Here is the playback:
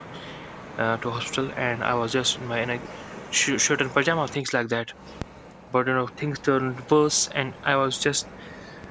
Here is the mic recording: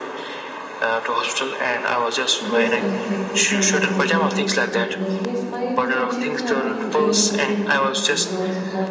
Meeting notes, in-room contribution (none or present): present